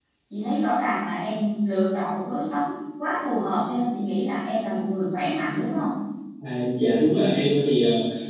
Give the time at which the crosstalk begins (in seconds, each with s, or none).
none